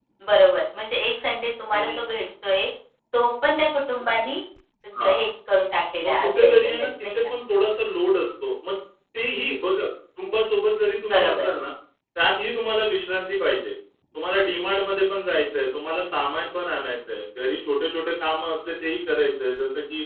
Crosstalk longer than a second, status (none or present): present